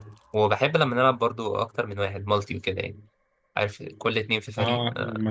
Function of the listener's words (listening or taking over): taking over